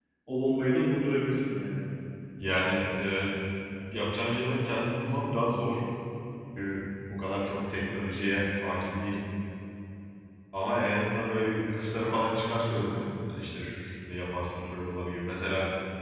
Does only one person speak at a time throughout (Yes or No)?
Yes